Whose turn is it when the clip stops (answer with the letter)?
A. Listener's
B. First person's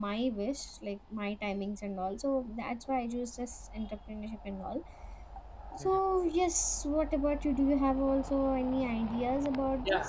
A